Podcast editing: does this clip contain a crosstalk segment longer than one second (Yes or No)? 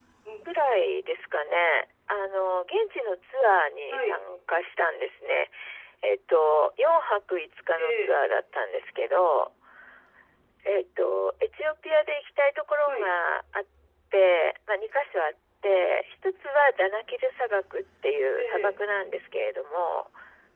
No